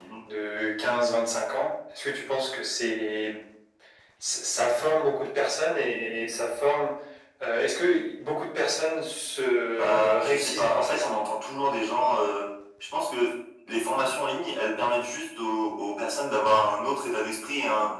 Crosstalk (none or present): present